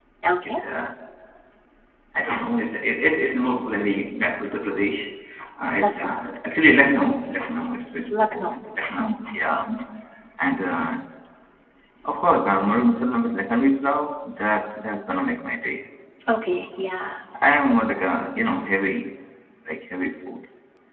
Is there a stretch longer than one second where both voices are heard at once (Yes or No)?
No